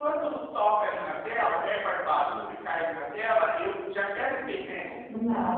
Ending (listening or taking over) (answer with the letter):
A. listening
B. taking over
B